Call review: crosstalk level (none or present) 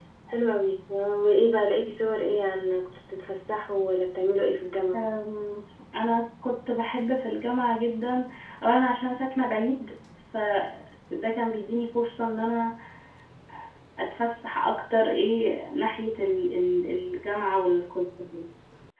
none